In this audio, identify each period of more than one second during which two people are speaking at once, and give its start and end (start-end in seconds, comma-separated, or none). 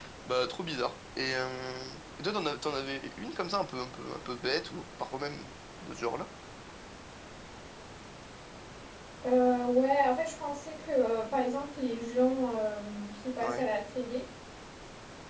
none